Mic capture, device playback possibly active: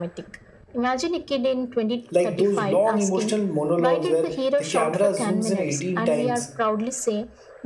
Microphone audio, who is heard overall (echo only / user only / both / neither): both